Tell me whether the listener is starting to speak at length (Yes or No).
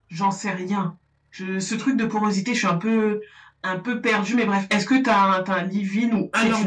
Yes